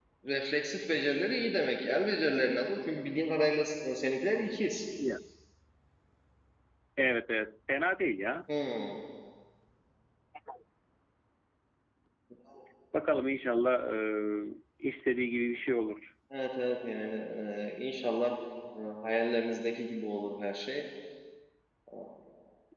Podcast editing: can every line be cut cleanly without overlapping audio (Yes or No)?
Yes